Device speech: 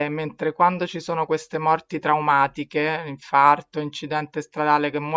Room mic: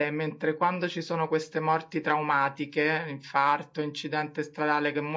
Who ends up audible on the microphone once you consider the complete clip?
echo only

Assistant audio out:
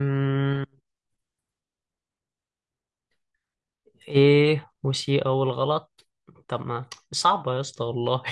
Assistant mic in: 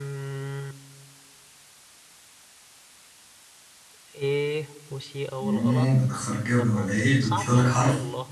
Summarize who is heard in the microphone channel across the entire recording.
both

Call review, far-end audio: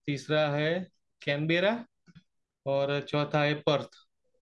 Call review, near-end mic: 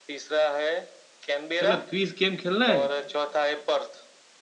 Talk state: both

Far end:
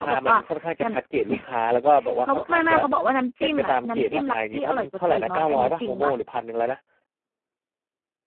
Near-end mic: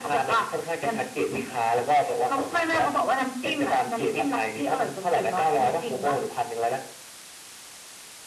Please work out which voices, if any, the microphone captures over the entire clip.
echo only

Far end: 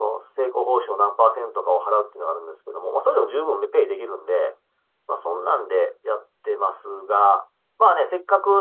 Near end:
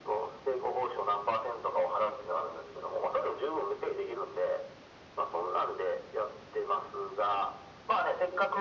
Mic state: echo only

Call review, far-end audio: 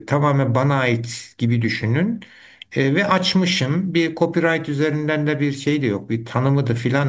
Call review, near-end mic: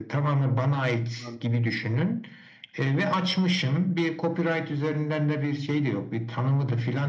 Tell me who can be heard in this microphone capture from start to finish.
both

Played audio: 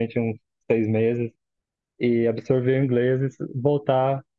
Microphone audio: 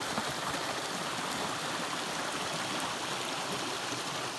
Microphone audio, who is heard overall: neither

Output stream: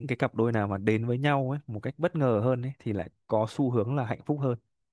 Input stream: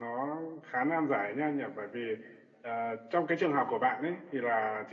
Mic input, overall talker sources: user only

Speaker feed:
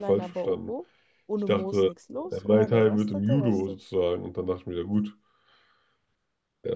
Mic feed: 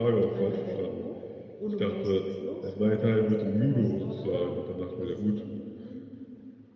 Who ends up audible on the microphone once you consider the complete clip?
both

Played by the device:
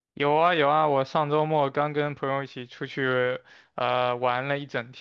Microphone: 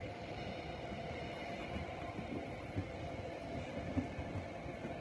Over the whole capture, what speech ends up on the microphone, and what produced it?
neither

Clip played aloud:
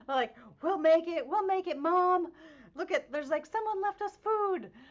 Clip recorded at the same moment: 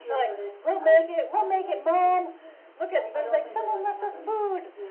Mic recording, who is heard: both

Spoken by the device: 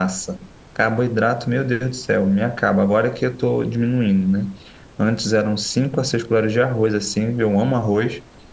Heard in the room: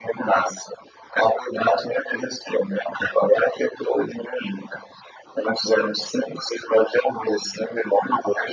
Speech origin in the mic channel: echo only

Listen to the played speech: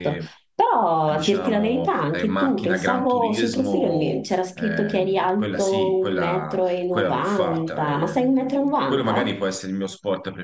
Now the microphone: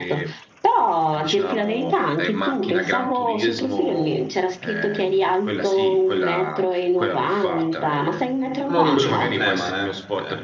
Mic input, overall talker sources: both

